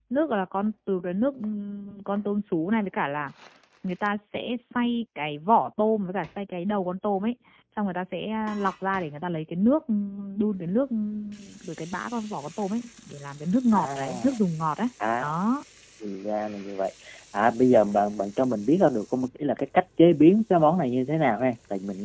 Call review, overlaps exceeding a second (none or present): none